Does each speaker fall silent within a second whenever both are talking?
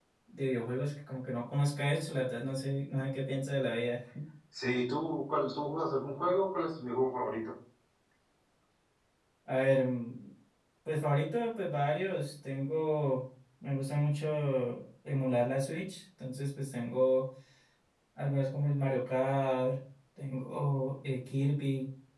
Yes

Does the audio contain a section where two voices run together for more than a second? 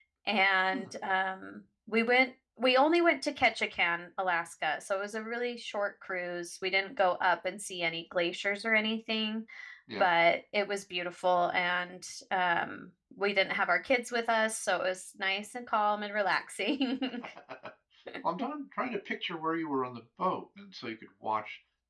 No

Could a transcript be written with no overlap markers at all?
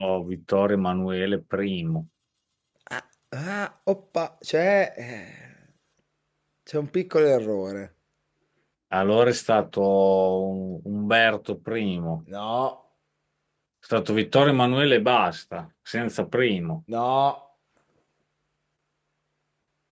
Yes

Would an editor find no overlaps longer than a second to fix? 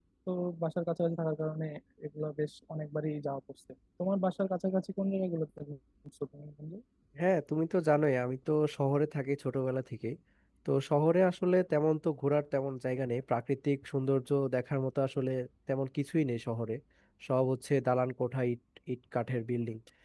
Yes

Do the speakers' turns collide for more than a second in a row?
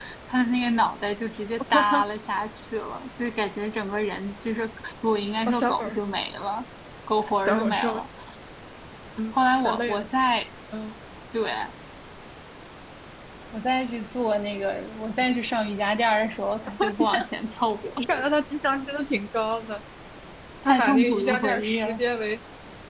Yes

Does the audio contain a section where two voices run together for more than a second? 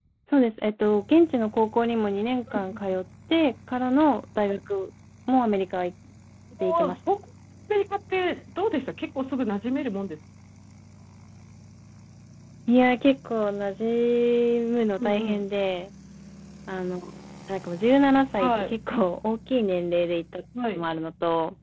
No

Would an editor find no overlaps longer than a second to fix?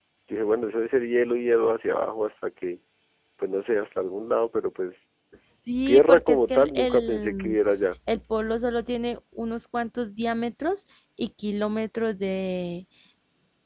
No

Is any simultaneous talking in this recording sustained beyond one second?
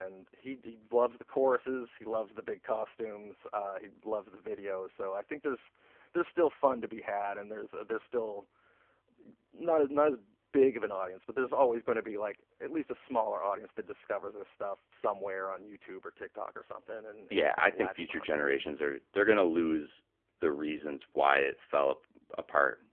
Yes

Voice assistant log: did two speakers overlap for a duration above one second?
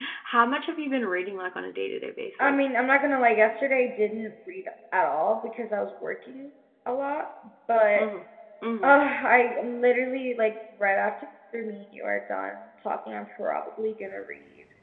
No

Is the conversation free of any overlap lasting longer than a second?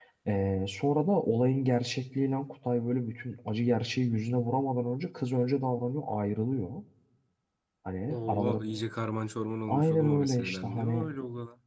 No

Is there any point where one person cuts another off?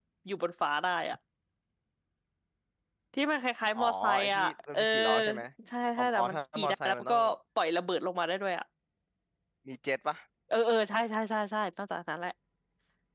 Yes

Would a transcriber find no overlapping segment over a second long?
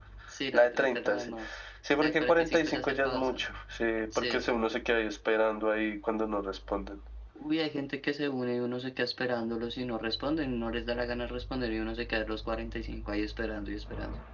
No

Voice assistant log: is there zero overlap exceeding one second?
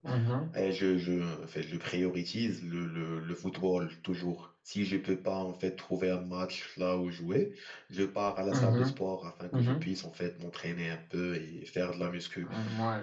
Yes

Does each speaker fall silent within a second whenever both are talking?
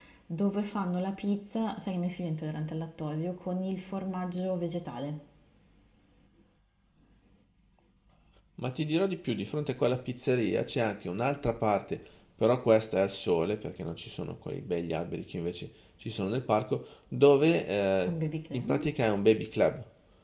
Yes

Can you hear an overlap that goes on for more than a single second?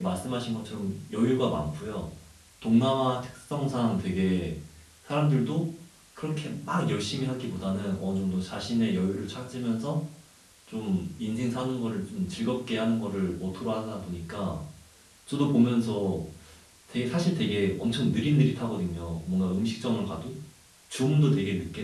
No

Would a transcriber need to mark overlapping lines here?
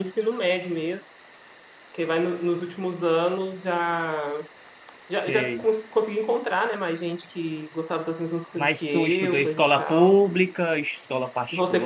Yes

